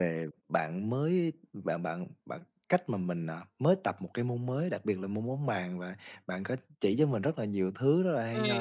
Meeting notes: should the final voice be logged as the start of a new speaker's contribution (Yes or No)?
No